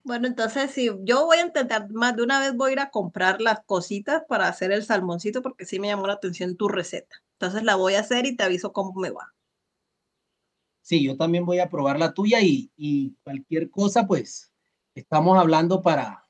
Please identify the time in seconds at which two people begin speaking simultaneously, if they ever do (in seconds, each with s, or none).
none